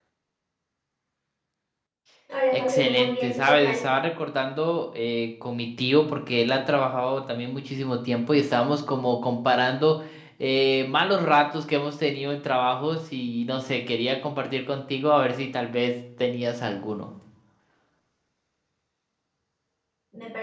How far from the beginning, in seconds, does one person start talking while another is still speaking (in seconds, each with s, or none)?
2.5 s